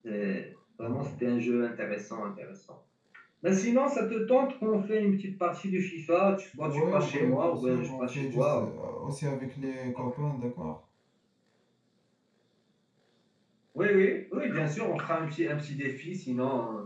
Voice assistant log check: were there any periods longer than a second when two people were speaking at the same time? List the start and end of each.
6.6-8.7

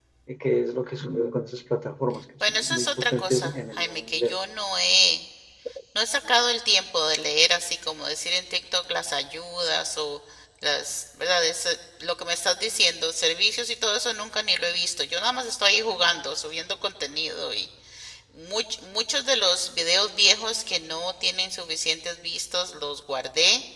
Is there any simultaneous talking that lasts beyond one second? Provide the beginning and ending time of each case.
2.5-4.3

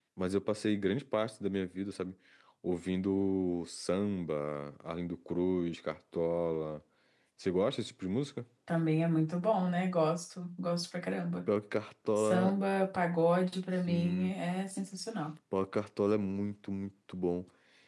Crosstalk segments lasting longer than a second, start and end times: none

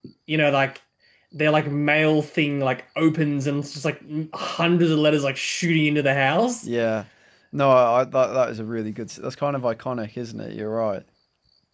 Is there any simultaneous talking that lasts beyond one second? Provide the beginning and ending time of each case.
none

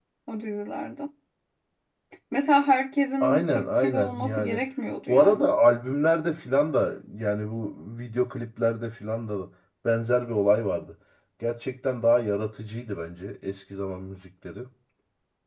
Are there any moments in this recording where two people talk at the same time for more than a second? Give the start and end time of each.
3.2-4.6

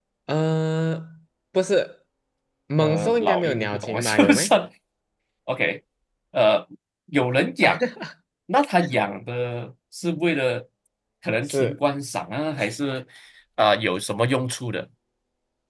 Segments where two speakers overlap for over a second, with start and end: 2.8-4.5

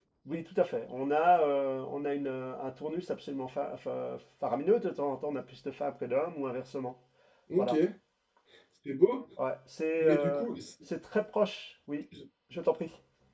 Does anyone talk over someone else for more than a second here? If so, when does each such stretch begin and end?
none

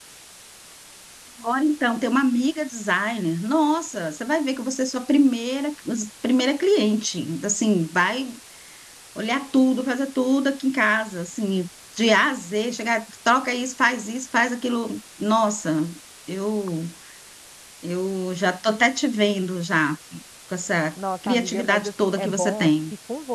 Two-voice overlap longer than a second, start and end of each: 21.2-22.7

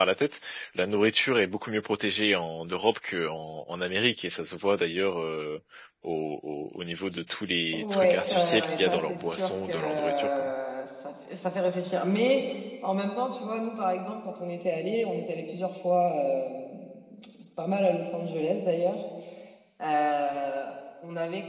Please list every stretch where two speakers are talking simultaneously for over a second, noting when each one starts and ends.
7.7-10.5

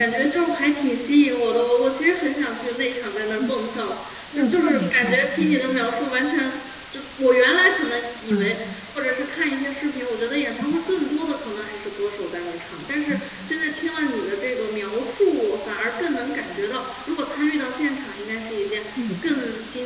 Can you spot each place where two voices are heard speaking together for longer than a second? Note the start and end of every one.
4.3-5.6

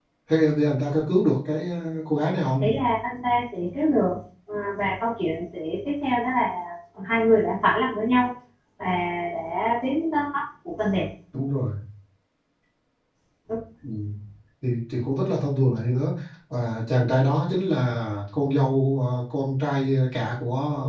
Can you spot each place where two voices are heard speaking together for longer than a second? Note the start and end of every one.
none

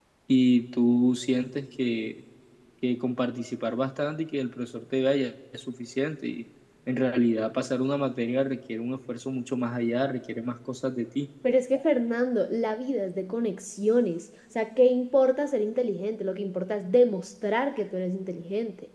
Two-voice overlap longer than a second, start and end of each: none

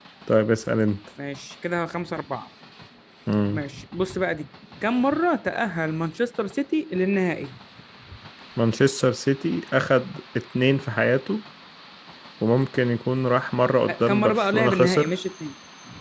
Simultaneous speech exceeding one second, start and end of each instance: 13.9-15.1

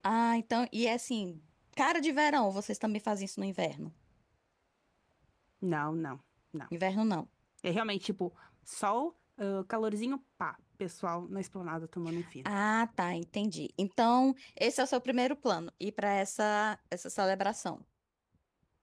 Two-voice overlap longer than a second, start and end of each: none

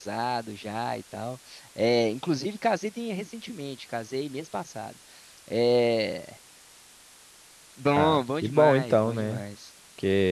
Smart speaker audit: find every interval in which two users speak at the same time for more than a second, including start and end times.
8.0-9.4

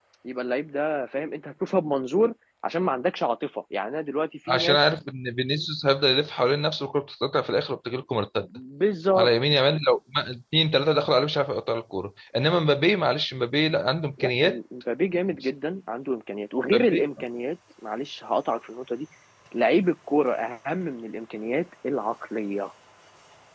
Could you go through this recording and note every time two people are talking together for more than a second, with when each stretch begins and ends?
none

